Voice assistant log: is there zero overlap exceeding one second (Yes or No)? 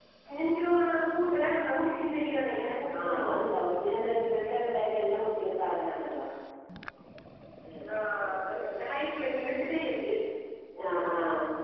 Yes